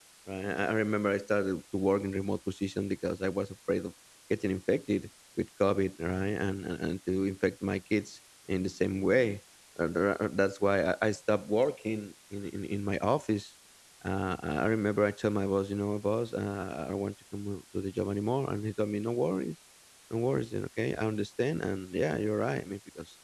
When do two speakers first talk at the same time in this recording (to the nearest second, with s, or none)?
none